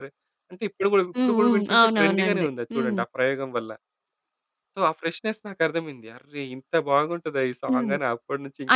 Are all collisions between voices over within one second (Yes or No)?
No